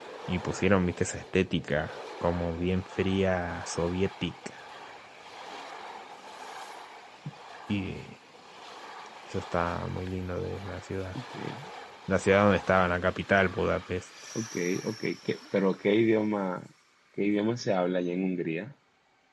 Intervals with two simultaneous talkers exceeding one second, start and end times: none

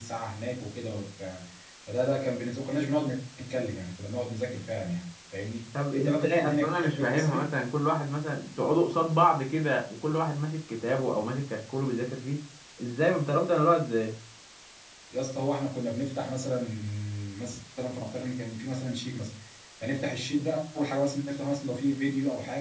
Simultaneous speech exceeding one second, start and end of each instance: 5.9-7.5

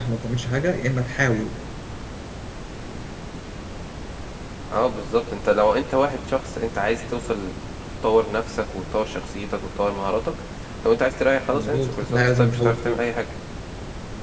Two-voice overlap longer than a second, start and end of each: 11.5-13.0

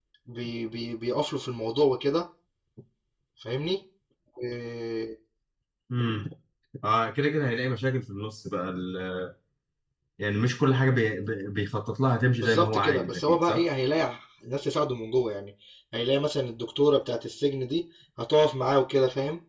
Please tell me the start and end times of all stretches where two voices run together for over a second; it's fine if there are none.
12.4-13.7

